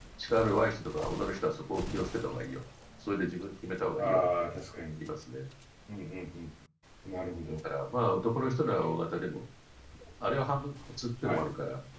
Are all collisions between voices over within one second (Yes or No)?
Yes